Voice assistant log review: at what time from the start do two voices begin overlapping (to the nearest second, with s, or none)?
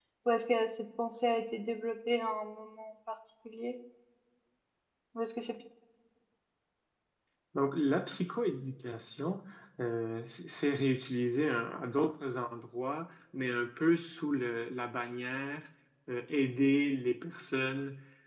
none